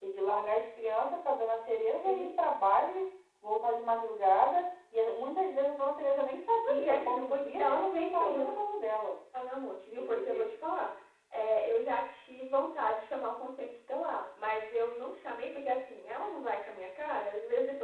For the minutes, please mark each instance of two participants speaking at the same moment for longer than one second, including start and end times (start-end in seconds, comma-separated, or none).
6.6-8.4